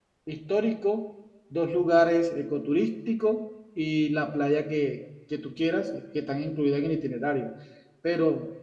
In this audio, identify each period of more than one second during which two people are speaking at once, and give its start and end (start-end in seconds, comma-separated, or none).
none